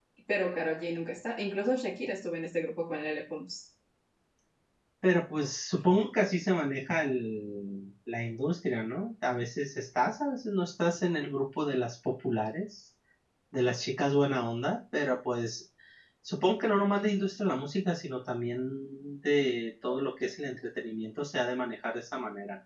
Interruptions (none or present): none